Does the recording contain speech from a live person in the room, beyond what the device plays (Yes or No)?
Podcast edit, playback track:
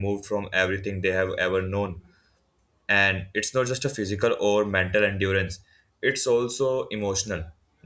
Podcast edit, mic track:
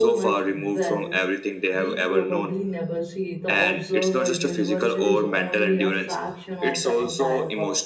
Yes